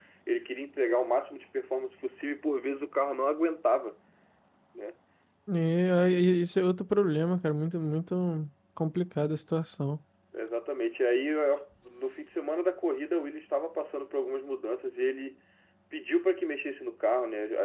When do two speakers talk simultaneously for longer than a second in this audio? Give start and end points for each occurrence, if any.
none

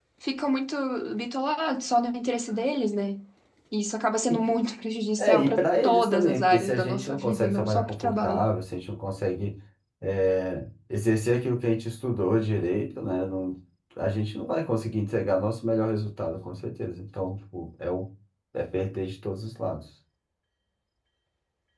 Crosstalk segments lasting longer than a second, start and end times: 5.2-8.5

